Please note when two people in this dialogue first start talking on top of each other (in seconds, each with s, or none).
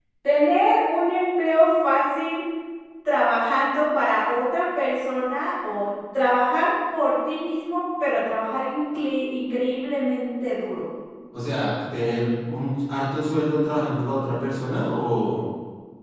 none